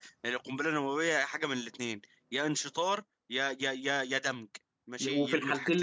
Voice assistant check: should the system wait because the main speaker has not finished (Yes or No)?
No